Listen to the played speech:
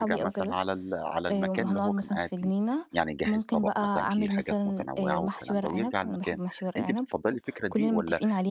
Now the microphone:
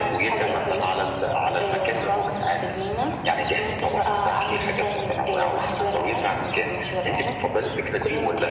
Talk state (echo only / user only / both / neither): echo only